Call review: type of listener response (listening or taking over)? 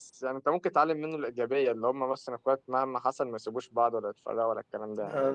taking over